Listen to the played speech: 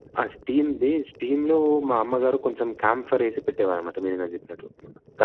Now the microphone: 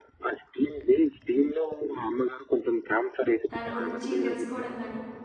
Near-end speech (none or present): present